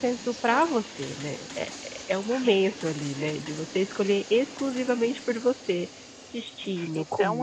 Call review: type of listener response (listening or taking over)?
taking over